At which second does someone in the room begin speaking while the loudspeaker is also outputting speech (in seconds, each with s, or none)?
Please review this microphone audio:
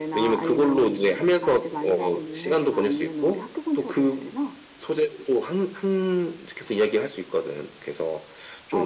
none